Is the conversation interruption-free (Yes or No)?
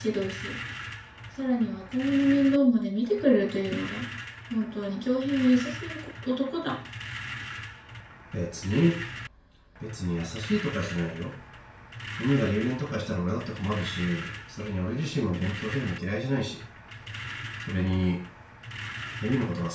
Yes